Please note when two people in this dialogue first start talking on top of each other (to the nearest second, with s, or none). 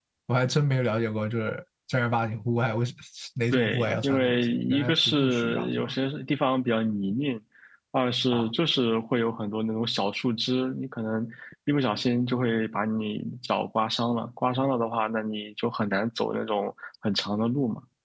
4 s